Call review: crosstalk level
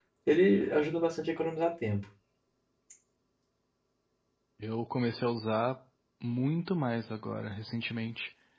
none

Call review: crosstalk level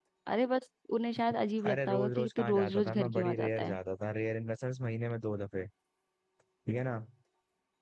present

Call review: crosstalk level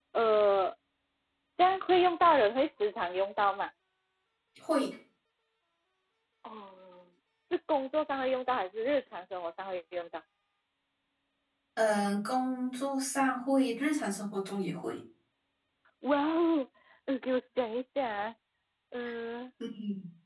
none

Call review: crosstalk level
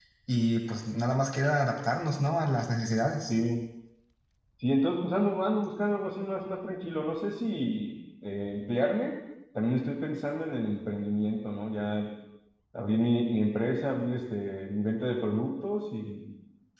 none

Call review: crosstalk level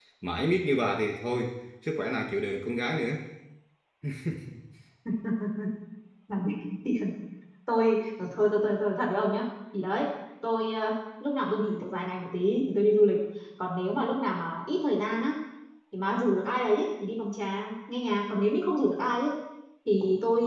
none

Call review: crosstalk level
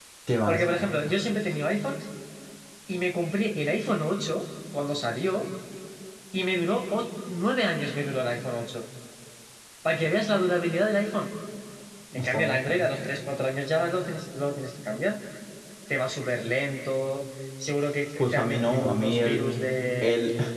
present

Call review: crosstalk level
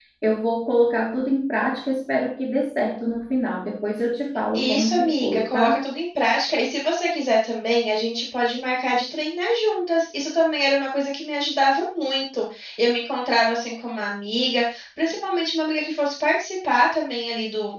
present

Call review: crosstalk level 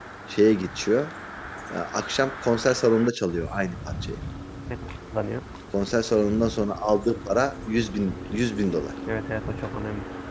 none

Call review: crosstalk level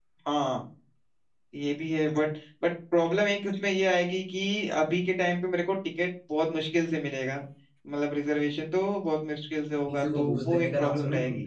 present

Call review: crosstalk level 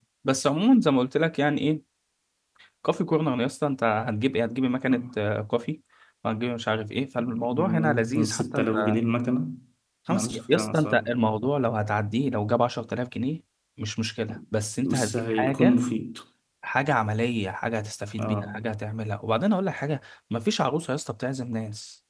present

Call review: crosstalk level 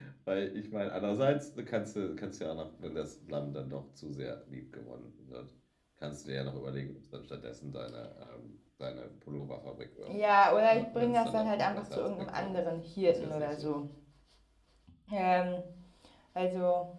present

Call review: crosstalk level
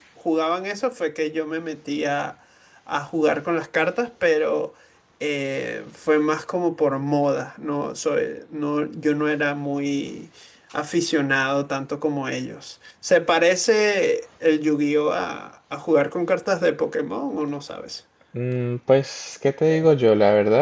none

